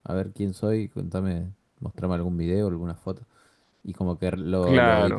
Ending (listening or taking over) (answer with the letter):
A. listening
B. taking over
A